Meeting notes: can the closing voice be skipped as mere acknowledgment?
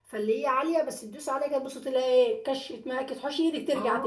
No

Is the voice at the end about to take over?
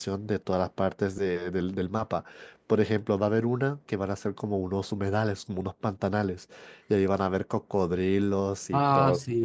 Yes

